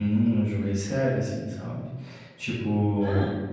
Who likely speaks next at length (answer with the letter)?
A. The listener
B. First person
B